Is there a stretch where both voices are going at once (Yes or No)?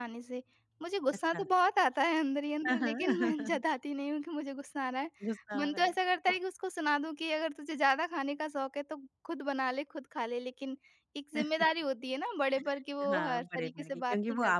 Yes